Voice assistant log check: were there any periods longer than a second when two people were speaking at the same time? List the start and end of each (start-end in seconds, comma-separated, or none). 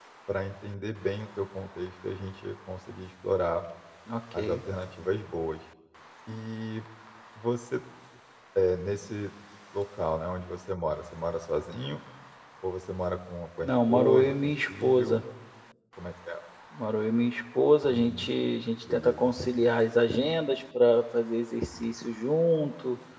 13.6-15.2